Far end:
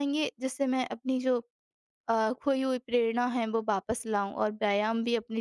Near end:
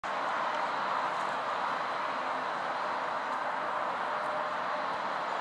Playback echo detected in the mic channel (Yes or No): No